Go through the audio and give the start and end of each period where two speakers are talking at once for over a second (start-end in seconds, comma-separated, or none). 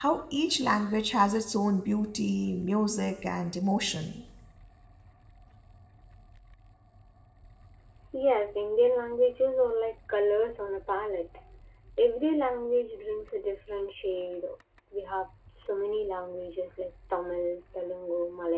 none